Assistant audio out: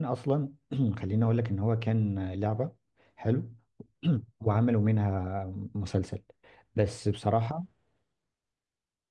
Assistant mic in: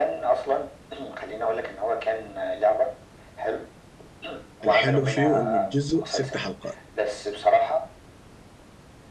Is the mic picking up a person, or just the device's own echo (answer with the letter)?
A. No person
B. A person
B